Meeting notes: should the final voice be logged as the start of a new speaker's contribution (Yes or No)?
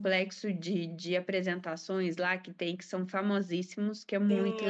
Yes